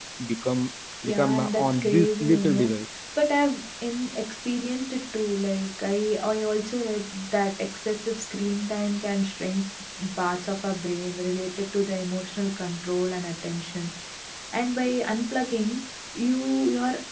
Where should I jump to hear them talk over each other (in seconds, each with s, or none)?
1.0 s